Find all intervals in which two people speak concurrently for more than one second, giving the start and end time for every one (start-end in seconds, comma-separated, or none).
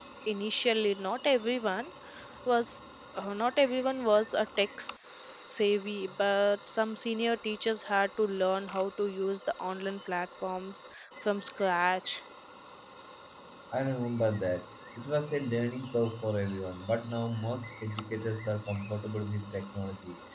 none